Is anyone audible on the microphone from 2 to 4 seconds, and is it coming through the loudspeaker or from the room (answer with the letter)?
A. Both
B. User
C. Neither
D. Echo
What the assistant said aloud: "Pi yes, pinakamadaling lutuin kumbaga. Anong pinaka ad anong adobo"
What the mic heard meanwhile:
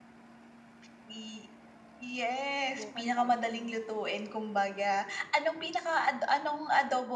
A